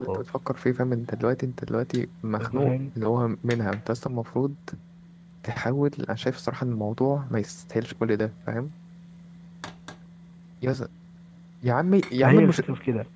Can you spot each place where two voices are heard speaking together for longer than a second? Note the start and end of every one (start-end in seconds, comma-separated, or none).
none